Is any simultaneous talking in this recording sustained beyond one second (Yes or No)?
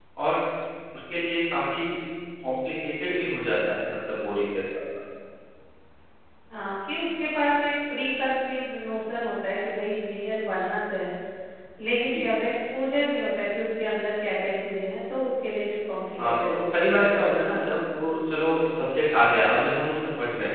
Yes